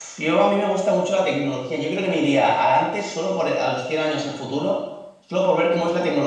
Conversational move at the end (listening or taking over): listening